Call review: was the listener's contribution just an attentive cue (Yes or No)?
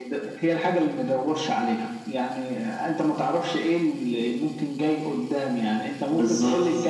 Yes